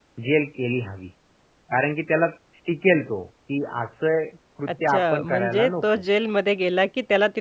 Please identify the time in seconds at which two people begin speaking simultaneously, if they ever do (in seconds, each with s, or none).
4.7 s